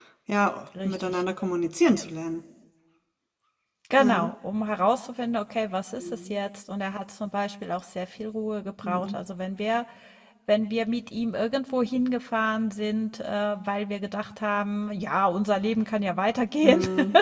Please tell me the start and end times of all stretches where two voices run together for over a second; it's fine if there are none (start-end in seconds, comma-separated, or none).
none